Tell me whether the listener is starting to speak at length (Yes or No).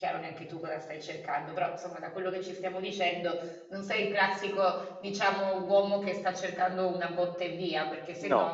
No